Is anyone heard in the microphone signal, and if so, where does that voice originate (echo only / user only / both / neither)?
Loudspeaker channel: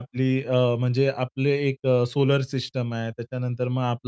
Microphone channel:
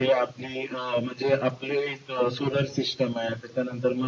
echo only